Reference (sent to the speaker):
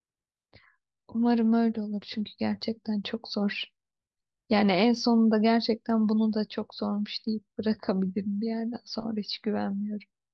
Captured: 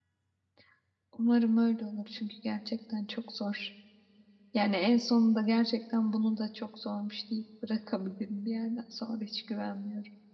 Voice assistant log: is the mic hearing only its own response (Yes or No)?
Yes